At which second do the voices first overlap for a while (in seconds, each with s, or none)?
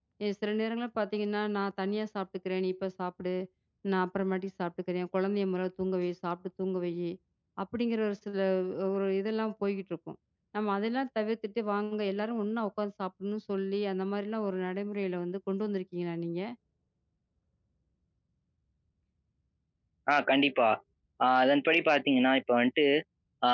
none